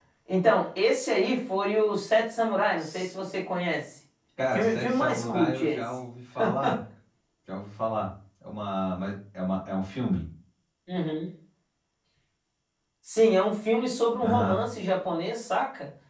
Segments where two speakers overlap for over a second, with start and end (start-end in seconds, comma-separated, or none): 4.5-5.8